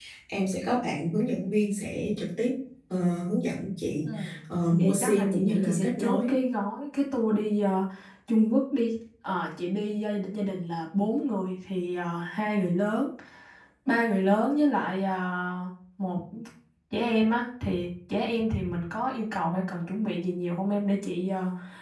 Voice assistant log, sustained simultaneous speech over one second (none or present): present